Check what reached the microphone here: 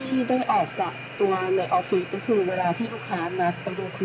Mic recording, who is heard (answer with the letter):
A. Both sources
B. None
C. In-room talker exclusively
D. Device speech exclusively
D